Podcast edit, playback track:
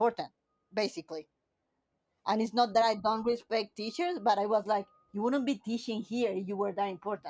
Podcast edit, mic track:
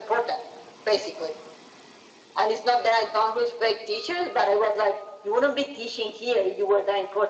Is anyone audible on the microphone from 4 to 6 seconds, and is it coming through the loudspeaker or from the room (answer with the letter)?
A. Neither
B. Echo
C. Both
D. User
B